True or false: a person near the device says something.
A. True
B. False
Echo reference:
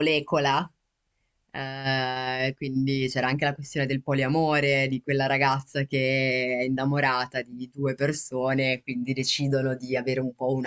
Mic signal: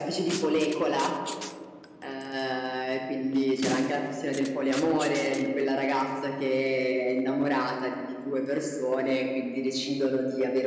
B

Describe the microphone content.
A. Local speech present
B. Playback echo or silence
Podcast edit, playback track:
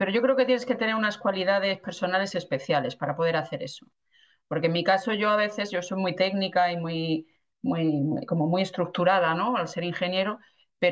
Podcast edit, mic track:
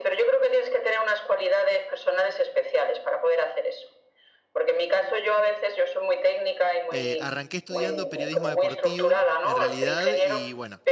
A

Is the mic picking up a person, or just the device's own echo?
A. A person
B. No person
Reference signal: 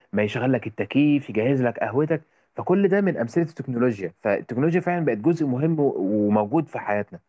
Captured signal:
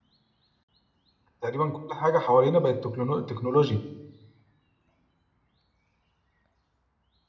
A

